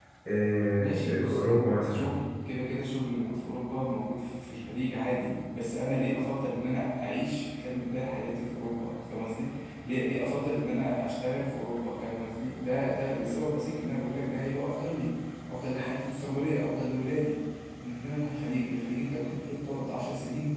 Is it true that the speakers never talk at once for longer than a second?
No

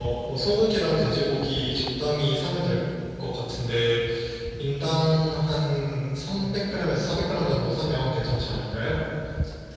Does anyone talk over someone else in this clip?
No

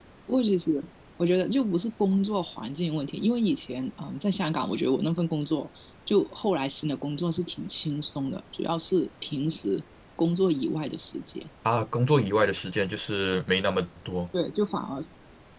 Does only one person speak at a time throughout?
Yes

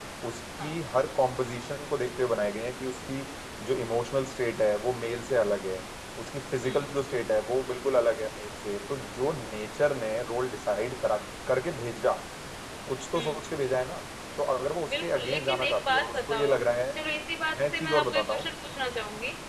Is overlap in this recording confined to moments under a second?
No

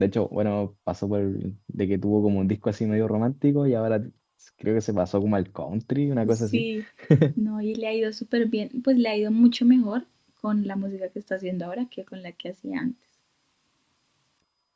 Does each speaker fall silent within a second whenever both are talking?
Yes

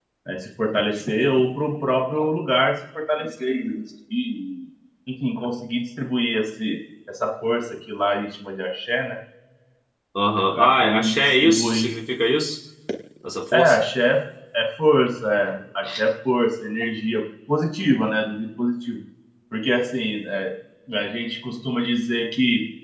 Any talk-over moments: Yes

